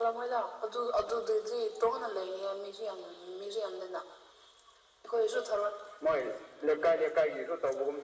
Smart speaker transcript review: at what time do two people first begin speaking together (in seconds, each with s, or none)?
none